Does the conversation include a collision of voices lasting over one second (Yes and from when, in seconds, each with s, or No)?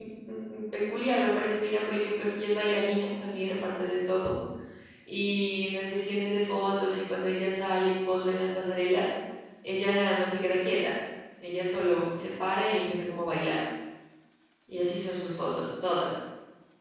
No